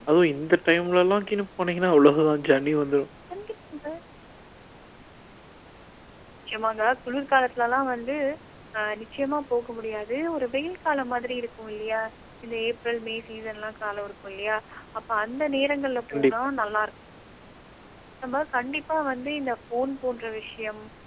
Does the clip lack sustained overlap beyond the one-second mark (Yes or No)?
Yes